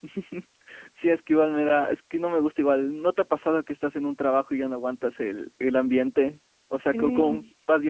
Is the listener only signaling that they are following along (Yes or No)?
Yes